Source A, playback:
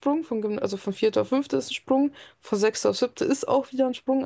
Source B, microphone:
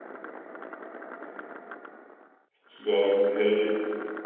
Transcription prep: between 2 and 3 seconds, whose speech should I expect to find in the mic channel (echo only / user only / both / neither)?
user only